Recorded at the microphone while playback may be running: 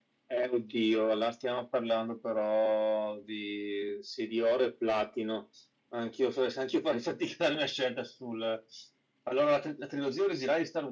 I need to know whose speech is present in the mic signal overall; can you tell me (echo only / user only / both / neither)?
echo only